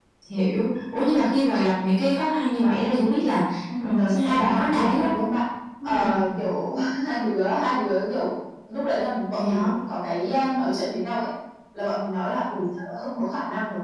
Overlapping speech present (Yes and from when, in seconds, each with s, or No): Yes, from 3.8 s